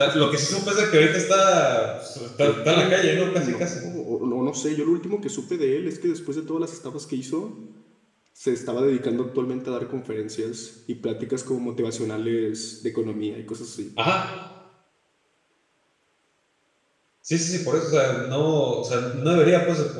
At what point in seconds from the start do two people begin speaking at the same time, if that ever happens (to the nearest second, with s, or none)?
2 s